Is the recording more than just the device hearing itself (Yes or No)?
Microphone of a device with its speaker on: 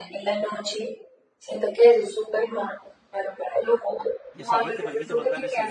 Yes